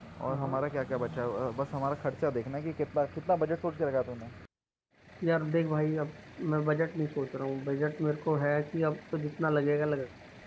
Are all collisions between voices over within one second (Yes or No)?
Yes